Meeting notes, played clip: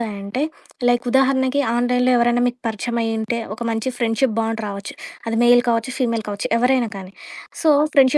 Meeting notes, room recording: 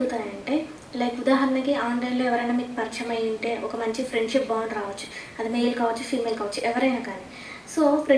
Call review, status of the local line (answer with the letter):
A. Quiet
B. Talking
A